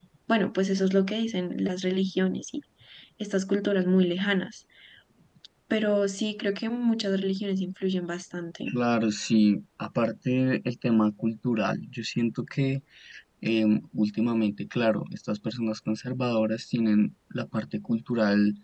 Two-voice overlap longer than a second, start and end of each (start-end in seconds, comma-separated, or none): none